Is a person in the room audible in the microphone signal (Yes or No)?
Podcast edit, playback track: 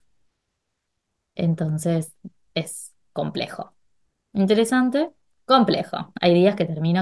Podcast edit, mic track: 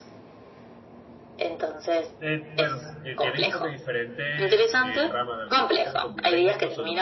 Yes